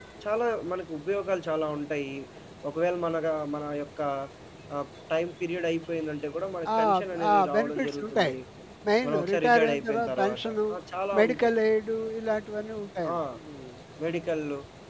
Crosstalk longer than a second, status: present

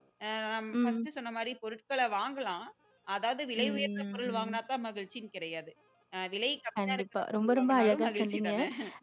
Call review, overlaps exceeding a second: present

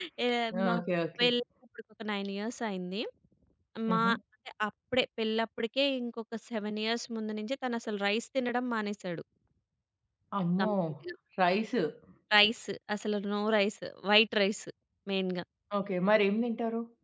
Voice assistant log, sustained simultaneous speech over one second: none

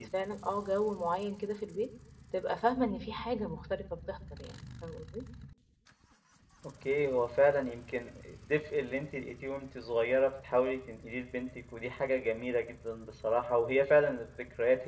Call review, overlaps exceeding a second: none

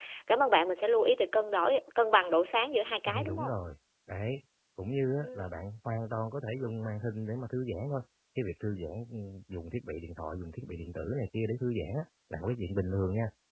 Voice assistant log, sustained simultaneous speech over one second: none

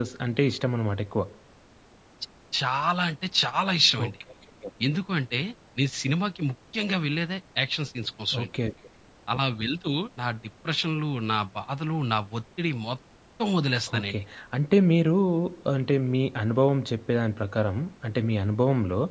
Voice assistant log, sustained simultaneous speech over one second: none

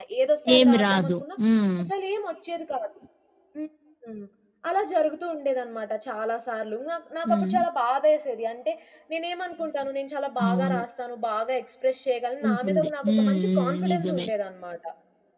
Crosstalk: present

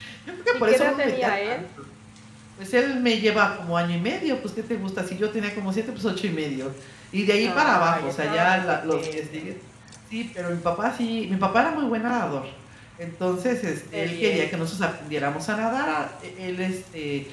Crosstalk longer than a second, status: present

